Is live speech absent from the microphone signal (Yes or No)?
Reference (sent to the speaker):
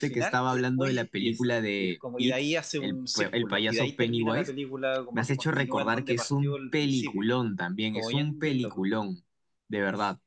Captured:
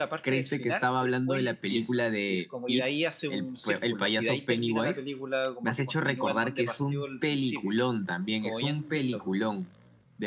Yes